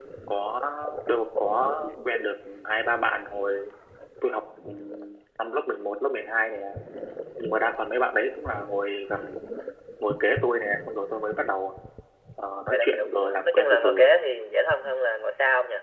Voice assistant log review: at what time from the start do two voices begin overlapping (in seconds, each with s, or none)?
12.7 s